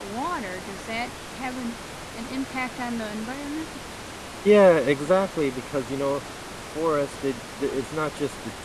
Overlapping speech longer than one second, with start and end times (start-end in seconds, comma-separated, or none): none